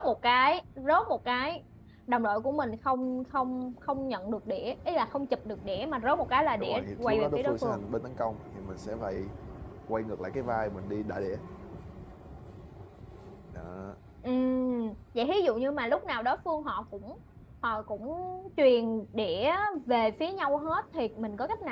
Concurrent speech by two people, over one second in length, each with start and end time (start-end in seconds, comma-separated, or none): 6.6-7.8